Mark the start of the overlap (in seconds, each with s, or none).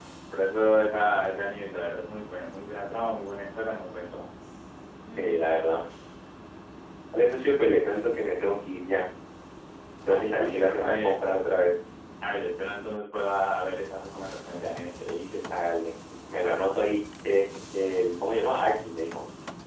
10.1 s